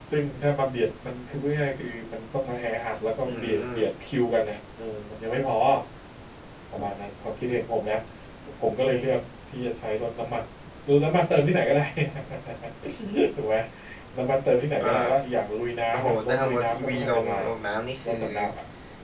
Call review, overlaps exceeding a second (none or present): present